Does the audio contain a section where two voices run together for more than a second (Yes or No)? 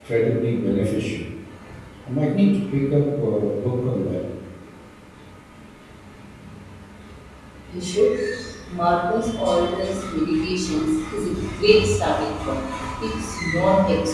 No